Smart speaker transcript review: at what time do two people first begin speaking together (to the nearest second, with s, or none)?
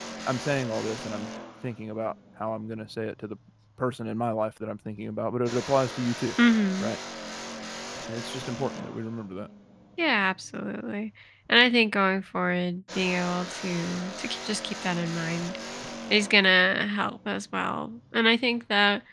none